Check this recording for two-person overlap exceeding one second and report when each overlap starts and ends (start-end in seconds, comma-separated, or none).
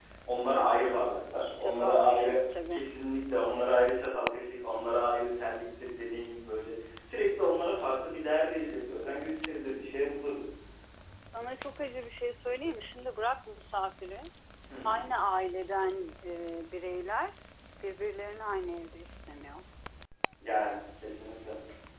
1.6-2.9